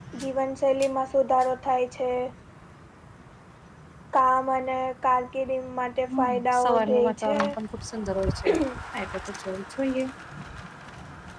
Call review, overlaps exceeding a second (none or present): present